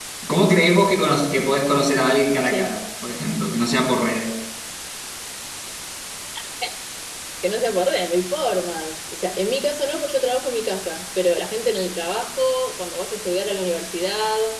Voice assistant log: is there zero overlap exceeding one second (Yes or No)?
Yes